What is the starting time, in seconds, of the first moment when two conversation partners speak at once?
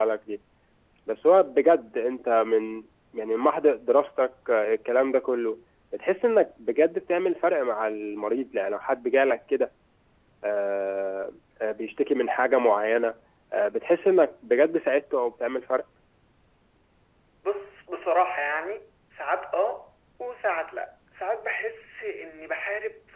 none

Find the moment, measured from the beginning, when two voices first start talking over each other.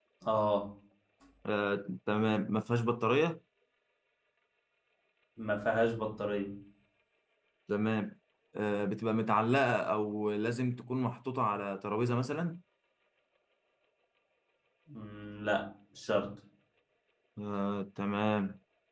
none

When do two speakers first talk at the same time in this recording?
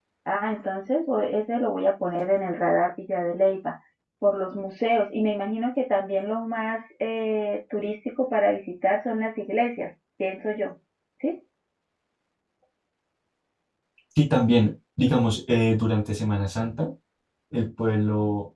none

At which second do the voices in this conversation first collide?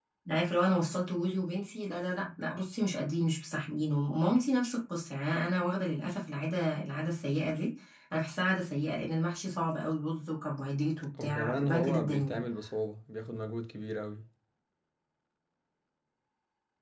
11 s

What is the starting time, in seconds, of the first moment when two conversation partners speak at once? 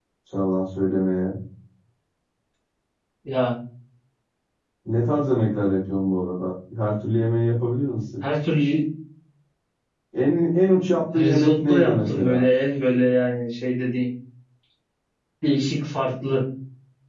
11 s

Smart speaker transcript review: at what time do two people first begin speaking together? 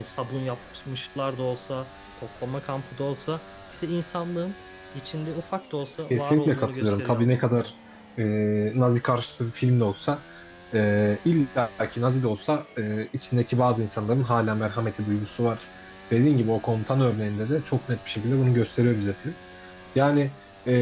6 s

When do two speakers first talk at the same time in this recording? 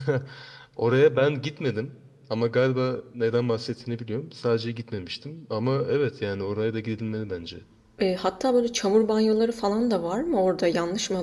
none

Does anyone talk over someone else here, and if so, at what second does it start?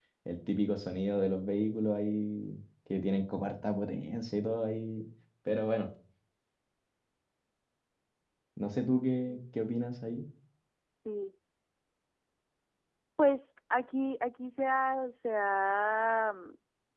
none

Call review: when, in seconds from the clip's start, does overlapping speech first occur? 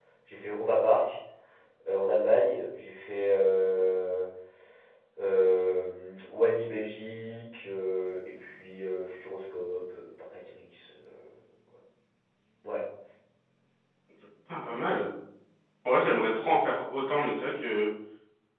none

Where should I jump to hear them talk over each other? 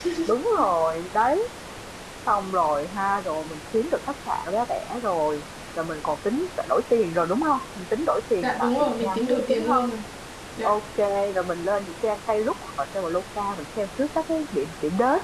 8 s

